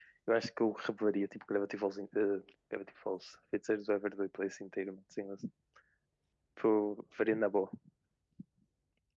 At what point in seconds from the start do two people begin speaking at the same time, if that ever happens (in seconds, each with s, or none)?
none